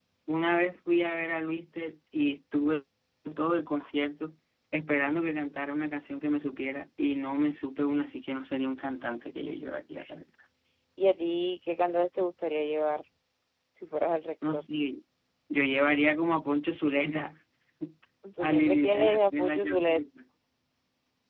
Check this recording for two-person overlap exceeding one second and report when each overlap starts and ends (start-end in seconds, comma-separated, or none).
18.4-20.0